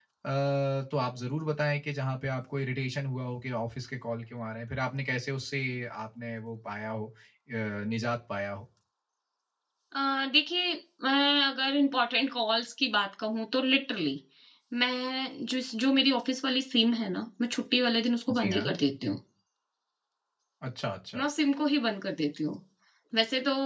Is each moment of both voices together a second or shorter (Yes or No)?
Yes